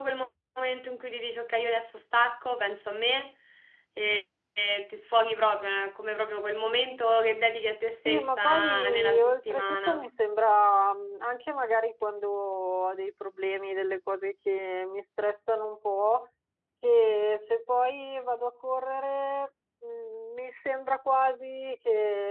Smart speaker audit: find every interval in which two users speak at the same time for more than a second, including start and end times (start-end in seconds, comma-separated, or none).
8.0-10.1